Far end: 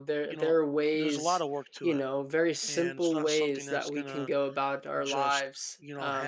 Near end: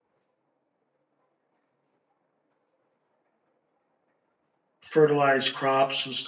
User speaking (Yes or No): Yes